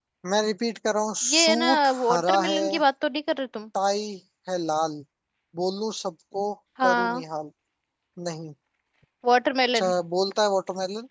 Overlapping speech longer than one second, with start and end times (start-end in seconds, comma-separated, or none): 1.2-2.6